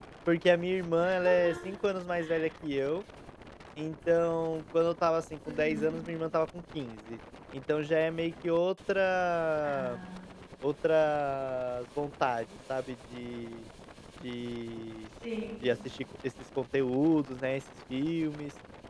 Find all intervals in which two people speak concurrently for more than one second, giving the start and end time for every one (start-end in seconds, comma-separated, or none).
none